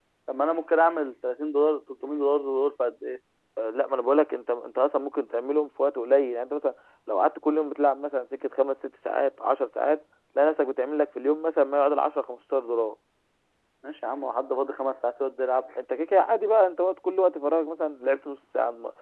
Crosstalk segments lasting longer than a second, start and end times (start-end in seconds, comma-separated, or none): none